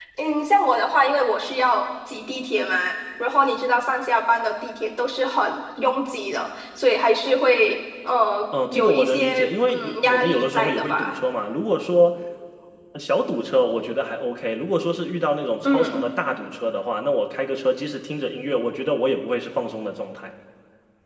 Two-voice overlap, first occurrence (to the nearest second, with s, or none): 9 s